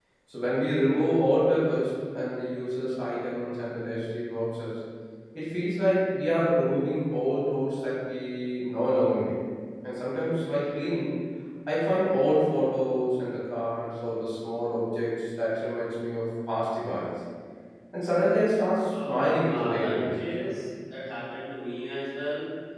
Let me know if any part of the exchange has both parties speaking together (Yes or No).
Yes